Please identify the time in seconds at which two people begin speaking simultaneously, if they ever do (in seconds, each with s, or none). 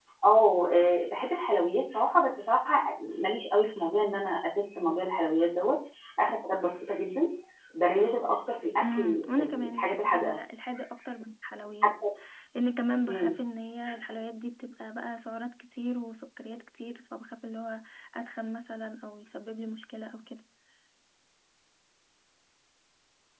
8.8 s